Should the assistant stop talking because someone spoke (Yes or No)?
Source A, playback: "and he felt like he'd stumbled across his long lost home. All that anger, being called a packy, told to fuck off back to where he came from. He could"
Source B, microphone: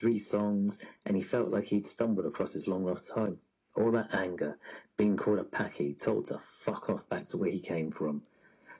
No